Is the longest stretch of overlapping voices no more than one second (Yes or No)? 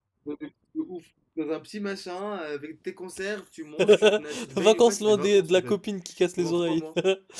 No